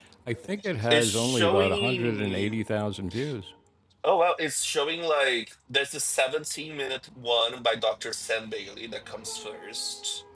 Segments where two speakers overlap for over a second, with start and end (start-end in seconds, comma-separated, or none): 0.9-2.6